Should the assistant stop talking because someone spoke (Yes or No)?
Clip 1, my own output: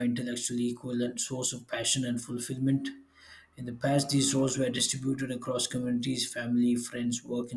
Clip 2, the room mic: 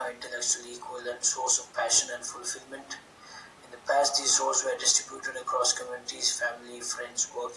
No